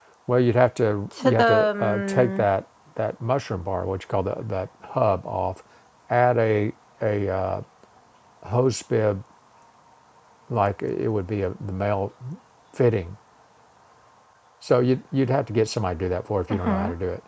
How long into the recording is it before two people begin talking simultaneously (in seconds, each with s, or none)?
1.2 s